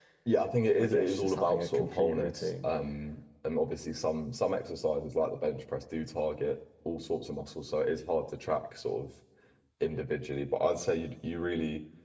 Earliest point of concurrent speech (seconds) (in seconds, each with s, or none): 0.8 s